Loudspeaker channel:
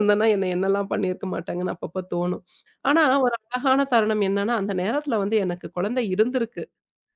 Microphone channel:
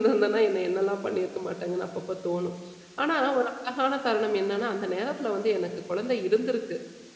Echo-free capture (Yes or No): No